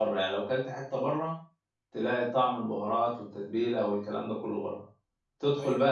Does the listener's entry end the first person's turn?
No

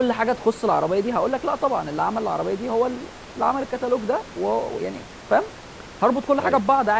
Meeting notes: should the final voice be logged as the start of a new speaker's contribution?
No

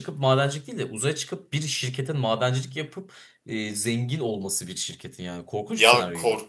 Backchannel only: No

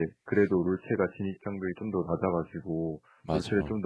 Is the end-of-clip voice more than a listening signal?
No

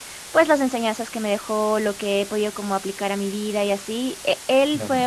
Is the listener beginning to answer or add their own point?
No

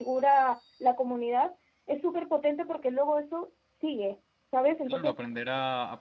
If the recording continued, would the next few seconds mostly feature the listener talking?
Yes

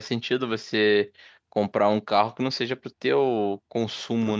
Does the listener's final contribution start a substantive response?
Yes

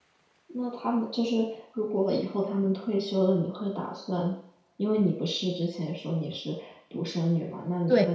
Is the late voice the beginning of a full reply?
No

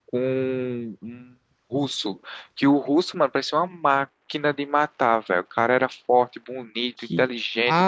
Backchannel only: No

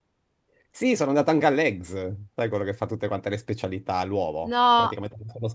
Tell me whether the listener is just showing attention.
Yes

